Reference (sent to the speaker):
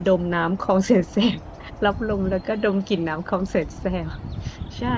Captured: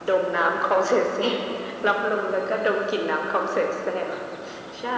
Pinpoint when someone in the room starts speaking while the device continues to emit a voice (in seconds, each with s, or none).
none